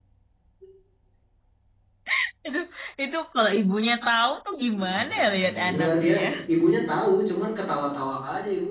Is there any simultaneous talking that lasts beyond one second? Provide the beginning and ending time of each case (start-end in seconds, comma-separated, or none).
4.8-6.1